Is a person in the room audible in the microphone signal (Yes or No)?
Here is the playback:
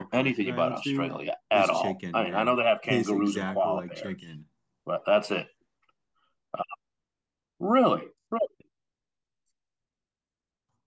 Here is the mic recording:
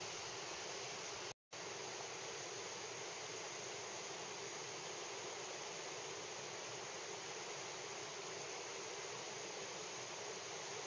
No